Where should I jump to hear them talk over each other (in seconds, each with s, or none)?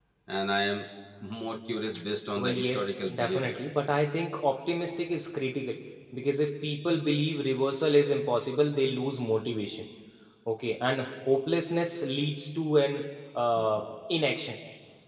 2.4 s